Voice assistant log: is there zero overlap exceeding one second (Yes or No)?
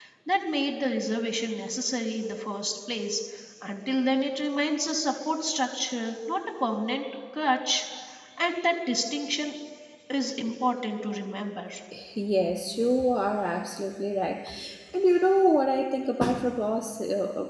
Yes